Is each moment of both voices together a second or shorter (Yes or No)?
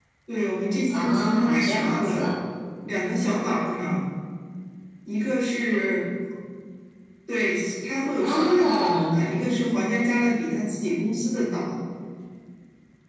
No